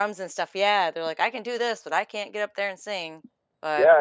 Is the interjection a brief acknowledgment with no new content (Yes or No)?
No